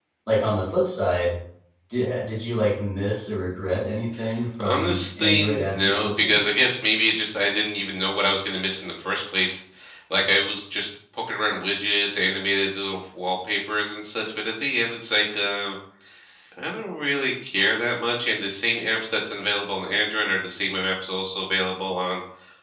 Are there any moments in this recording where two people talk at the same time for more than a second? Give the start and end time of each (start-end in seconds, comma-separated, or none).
4.6-6.4